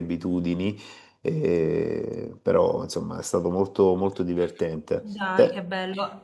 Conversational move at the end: taking over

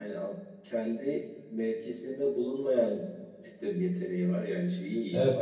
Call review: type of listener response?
taking over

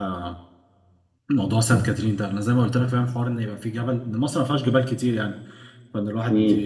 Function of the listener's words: listening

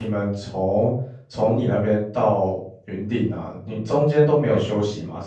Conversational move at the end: listening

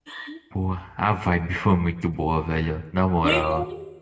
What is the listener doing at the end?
taking over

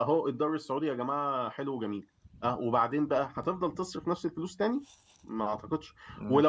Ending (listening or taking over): listening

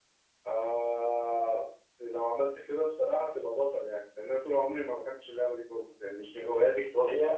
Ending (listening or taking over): taking over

